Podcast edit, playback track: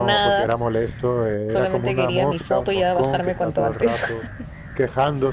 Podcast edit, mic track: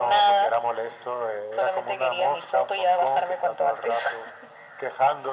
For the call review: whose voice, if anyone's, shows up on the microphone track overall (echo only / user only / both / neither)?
echo only